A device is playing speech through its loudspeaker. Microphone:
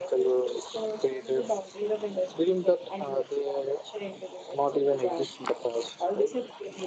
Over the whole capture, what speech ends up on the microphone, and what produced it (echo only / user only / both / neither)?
echo only